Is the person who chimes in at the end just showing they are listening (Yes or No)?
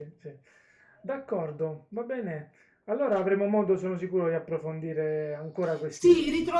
No